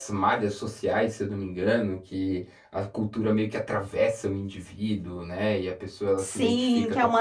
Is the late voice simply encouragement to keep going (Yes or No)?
No